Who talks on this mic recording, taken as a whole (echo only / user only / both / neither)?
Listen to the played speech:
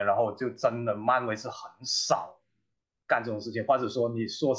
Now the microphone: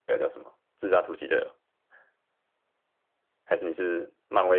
user only